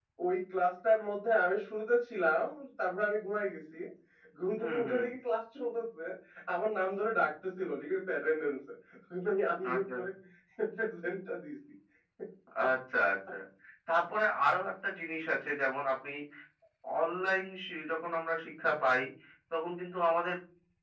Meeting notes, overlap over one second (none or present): none